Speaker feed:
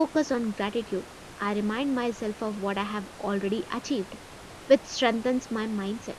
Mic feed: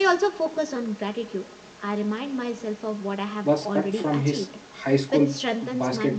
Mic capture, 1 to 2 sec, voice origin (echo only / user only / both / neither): echo only